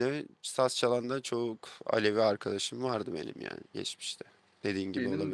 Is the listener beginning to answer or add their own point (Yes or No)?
Yes